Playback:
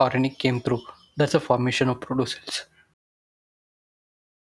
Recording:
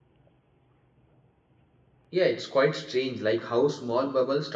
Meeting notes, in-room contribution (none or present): present